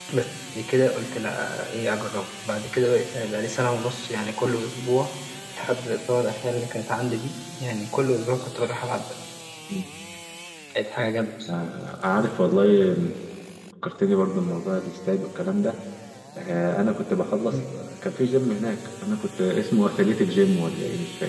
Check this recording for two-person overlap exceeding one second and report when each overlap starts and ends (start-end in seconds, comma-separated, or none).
none